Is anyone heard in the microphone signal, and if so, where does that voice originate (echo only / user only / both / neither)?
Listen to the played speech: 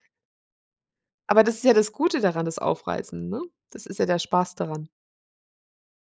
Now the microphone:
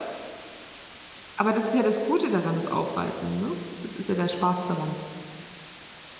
echo only